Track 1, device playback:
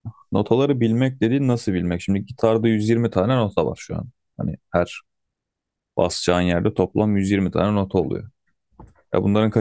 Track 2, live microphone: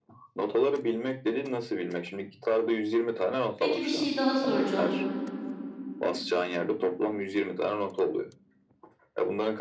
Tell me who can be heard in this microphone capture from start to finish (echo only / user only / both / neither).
both